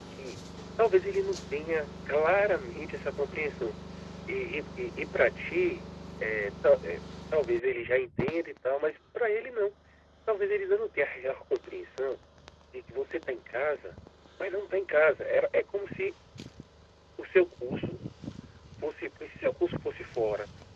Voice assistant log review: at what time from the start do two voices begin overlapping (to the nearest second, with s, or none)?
none